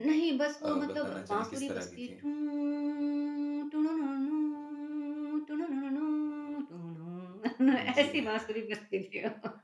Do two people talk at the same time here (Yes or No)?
Yes